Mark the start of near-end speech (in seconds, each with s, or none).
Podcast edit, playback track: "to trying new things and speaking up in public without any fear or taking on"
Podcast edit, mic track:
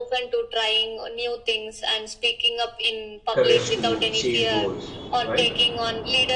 3.3 s